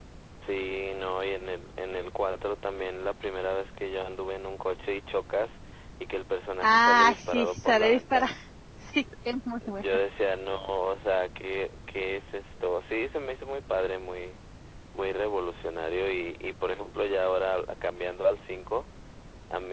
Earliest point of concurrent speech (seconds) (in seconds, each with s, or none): 6.6 s